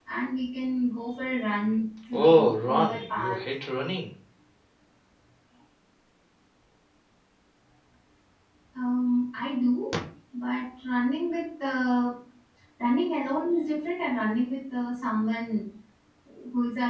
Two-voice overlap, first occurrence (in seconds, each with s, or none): 2.1 s